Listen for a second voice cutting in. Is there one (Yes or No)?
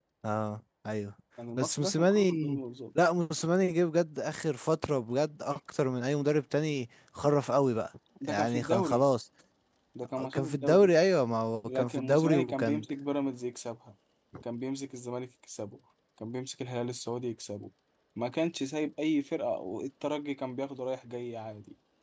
Yes